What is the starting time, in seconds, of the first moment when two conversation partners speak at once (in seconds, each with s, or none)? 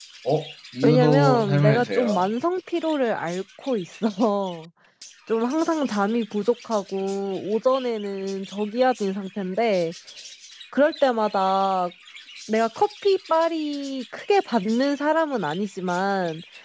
0.8 s